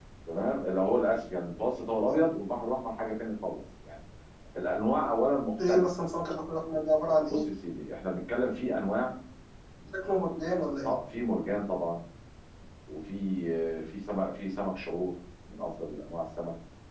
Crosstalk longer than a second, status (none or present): none